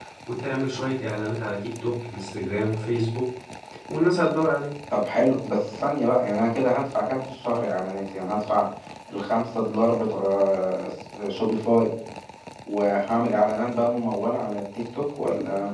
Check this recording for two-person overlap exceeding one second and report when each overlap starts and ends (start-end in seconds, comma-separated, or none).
none